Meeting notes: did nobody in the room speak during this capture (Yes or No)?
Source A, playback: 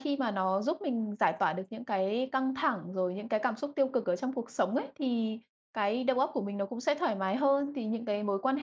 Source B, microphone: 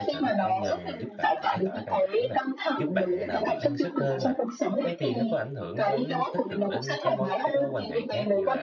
No